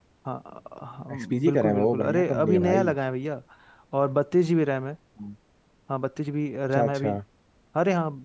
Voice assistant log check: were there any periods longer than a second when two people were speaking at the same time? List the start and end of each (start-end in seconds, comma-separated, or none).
1.1-2.9